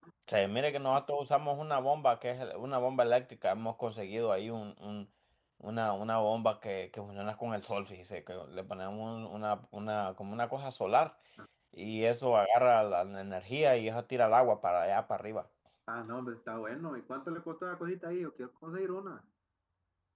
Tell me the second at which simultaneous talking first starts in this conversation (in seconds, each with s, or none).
none